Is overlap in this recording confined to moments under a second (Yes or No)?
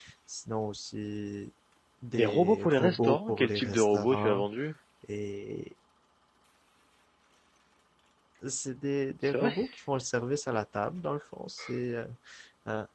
No